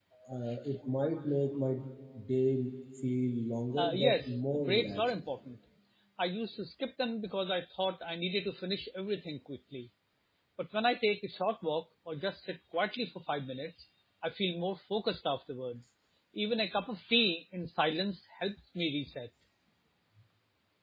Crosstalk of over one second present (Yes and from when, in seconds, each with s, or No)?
Yes, from 3.8 s